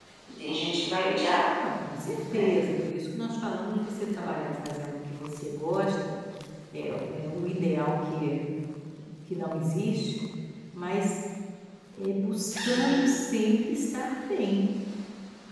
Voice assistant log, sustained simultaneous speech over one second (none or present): none